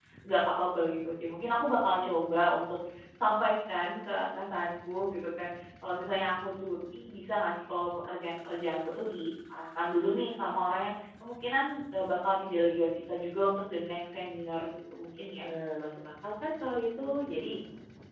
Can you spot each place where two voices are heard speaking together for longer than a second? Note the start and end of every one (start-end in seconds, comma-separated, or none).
none